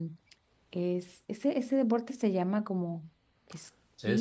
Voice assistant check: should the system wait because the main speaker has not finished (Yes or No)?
No